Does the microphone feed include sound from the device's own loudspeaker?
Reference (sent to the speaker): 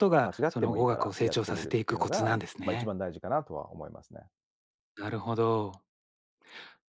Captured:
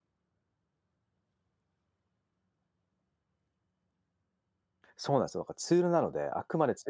No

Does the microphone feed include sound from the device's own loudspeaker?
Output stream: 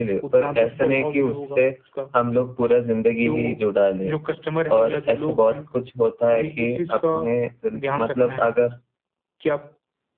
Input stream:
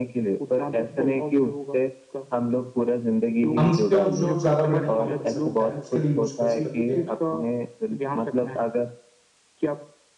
Yes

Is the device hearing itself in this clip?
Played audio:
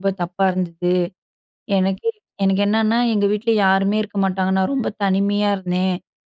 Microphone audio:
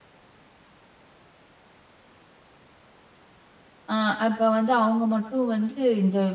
No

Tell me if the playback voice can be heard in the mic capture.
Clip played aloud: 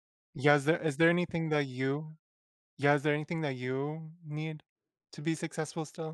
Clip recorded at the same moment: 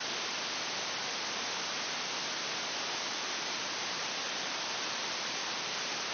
No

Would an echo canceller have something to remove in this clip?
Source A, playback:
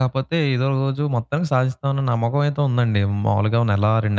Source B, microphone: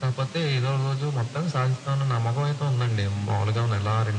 Yes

